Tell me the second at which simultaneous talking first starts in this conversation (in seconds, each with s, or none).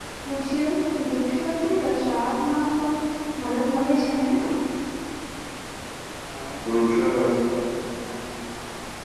none